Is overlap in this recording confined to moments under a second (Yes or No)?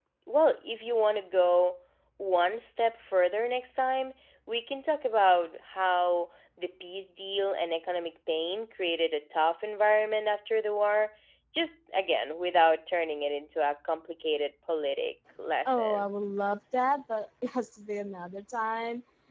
Yes